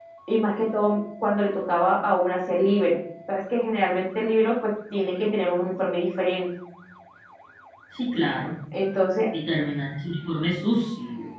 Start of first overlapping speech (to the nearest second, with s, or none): none